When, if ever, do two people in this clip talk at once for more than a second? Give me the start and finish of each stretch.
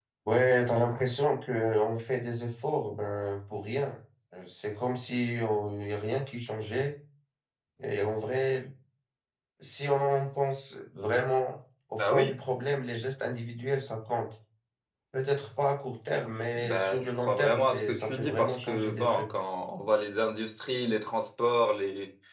16.6-19.3

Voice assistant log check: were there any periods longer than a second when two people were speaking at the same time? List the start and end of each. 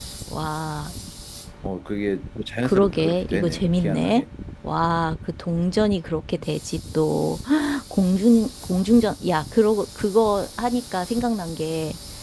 2.6-4.2

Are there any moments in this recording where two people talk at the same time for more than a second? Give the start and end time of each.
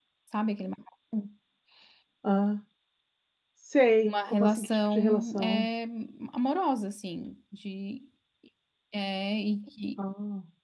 4.1-5.7

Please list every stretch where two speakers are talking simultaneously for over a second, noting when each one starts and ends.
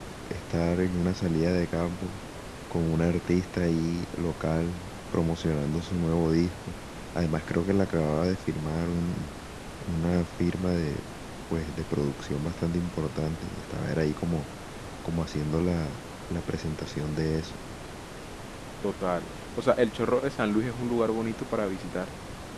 none

